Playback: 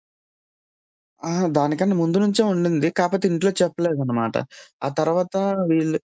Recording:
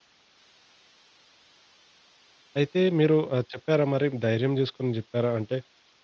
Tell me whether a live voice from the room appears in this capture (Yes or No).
Yes